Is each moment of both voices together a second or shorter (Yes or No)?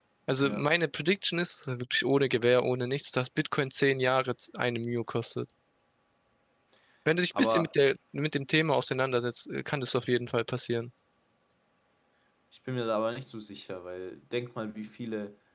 Yes